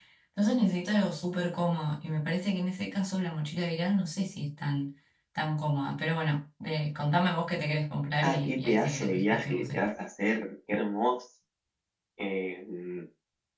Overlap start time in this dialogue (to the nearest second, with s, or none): 8 s